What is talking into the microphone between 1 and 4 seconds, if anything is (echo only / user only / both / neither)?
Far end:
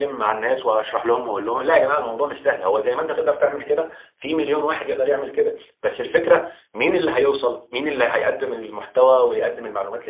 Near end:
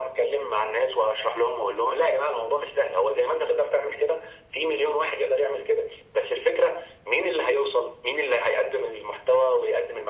echo only